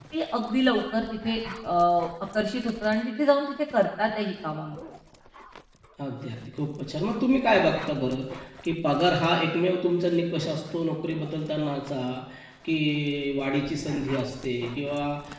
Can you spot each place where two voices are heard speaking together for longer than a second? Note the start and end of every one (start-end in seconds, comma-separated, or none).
none